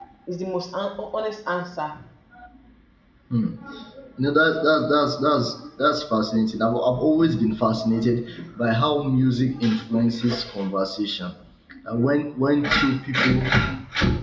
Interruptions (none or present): none